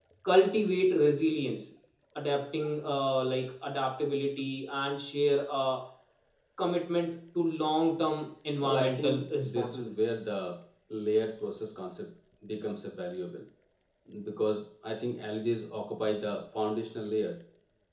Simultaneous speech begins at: 8.6 s

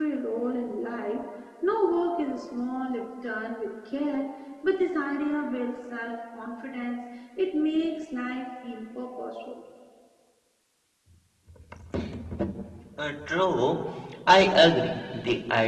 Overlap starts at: none

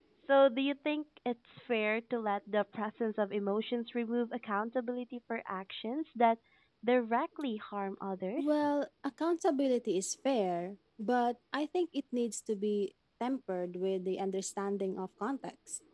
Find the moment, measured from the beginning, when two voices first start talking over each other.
none

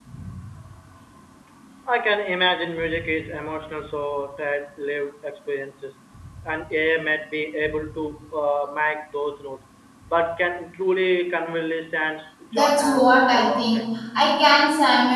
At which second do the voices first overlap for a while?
12.5 s

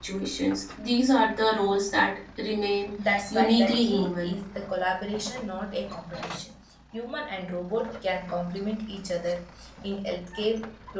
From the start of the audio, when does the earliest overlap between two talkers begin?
3.0 s

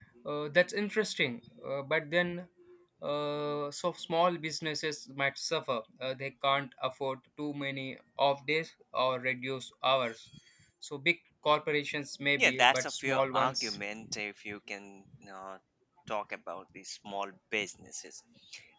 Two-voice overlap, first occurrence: 12.3 s

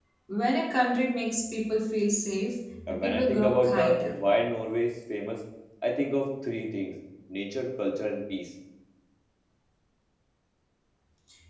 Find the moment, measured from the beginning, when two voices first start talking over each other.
2.9 s

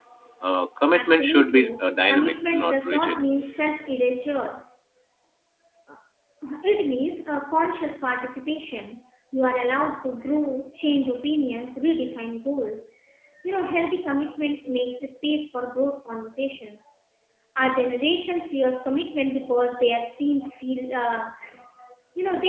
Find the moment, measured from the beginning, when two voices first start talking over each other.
0.9 s

